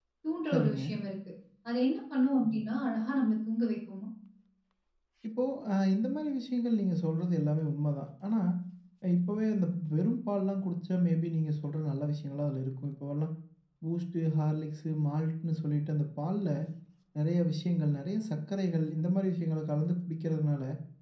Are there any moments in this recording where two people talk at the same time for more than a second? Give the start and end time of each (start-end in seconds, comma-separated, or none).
none